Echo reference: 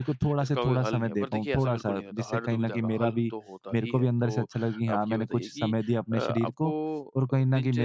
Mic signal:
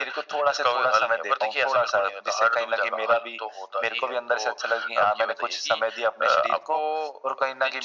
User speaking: No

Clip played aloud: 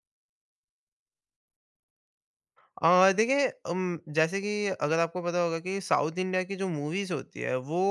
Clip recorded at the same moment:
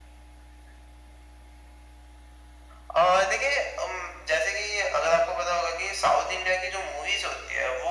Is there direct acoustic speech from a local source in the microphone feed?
No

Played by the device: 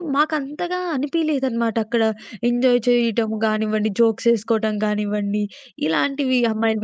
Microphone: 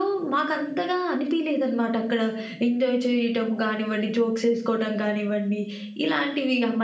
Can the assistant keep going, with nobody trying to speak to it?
Yes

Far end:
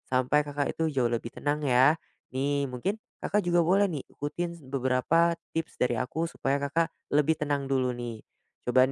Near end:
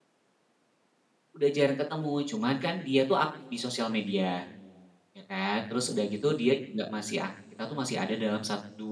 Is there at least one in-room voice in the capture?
Yes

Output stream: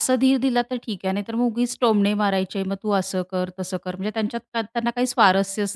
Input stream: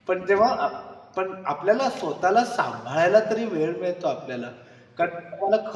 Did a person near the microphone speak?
Yes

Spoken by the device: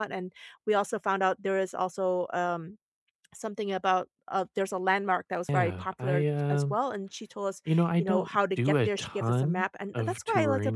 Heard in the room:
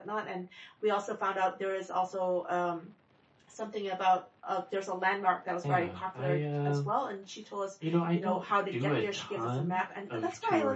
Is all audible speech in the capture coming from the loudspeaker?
Yes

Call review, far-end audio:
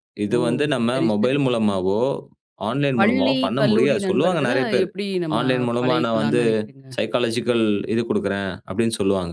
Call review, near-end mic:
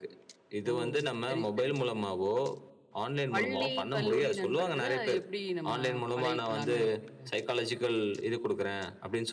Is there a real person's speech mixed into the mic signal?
No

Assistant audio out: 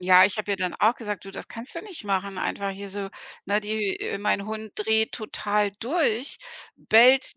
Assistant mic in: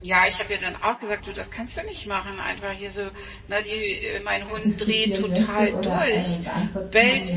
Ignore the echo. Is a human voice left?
Yes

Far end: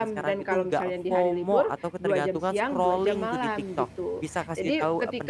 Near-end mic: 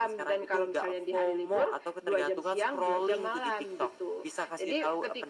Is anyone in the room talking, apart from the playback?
No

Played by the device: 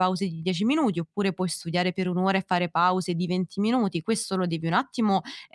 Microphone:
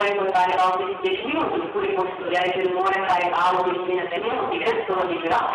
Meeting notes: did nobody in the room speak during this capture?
No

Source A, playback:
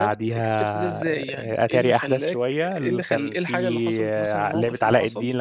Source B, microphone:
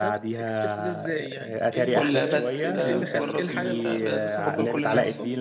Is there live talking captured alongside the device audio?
Yes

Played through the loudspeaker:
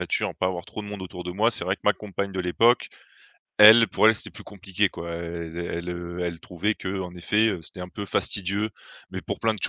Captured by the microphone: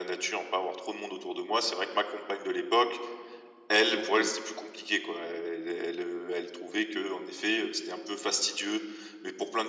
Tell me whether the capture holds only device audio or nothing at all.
No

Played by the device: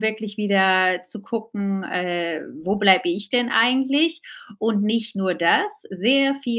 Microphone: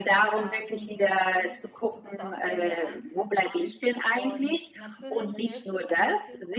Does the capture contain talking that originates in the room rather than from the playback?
Yes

